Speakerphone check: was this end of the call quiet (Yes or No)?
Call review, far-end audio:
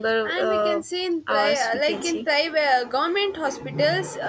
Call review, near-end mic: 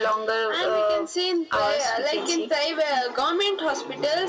Yes